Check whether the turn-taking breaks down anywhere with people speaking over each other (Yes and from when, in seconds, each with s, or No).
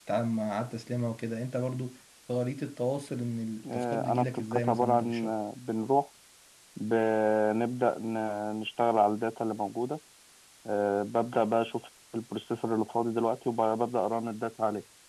Yes, from 3.6 s